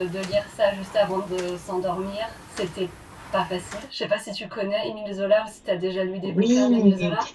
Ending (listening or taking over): taking over